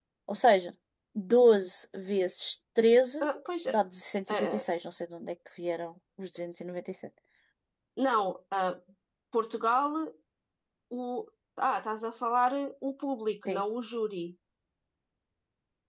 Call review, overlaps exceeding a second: none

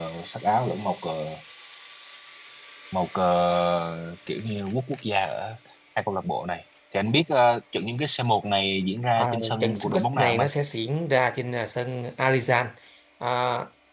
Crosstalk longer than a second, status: present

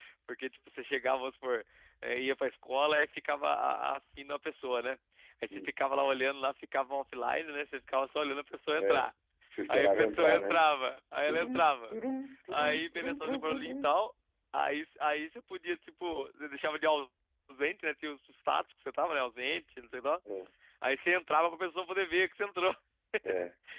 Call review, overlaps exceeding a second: present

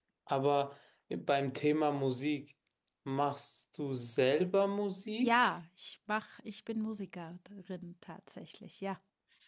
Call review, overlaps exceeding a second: none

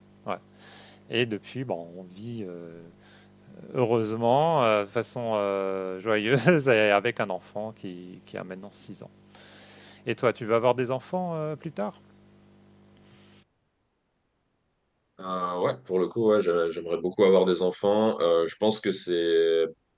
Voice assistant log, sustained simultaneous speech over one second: none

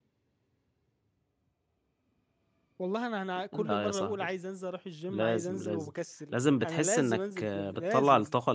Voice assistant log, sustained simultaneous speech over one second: present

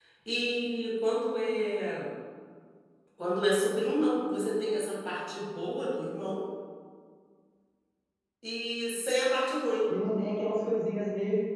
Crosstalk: none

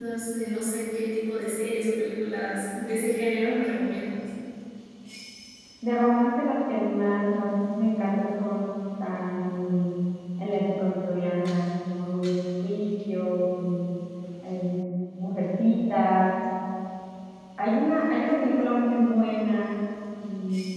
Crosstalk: none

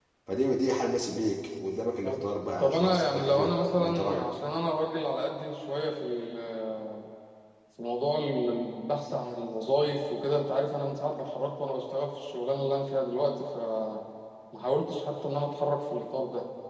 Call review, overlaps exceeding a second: present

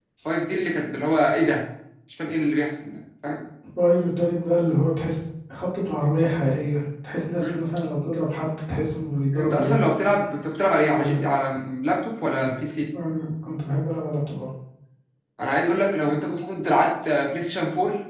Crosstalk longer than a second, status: none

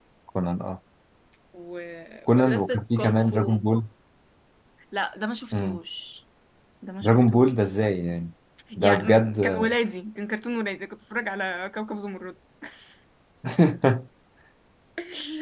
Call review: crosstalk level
present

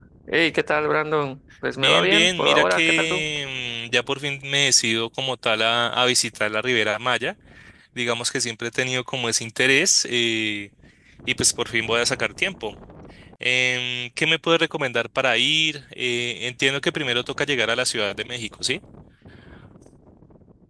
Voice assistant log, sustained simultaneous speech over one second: present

